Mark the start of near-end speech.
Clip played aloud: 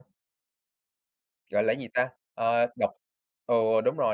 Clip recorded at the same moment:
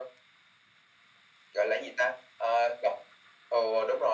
none

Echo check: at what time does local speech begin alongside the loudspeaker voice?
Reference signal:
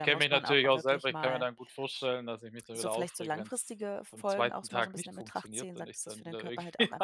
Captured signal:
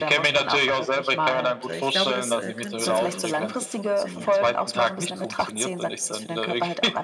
1 s

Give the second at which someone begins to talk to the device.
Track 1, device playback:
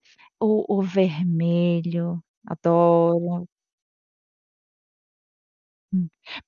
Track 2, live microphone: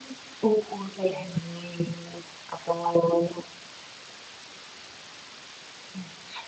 none

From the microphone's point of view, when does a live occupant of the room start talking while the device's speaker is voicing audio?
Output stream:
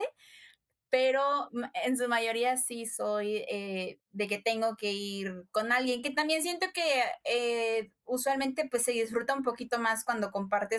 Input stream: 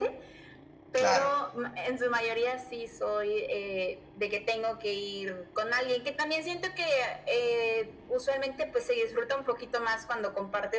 1 s

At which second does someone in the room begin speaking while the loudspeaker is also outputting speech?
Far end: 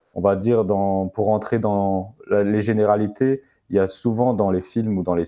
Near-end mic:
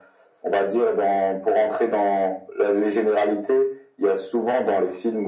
none

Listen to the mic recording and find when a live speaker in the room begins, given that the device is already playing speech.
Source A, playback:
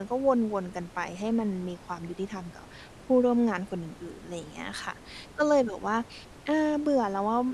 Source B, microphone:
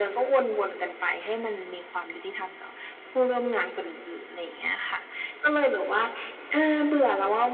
none

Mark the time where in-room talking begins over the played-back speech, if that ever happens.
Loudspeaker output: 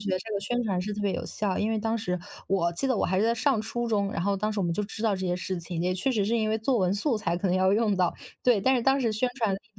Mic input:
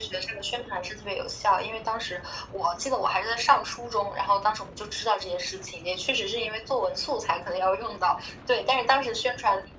none

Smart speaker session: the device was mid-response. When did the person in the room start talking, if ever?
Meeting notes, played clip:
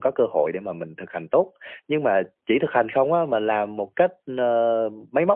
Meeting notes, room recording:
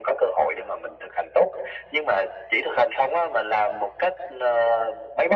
none

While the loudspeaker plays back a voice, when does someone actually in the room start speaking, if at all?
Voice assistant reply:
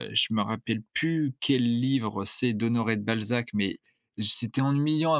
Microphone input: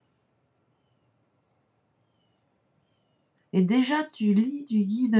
4 s

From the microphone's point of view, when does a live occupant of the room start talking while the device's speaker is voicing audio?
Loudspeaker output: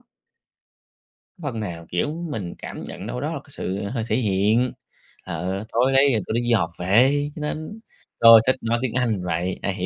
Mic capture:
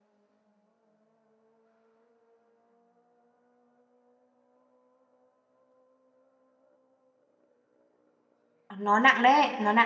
9 s

